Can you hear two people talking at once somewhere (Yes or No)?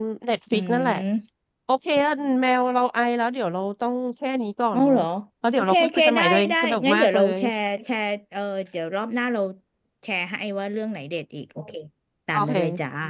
Yes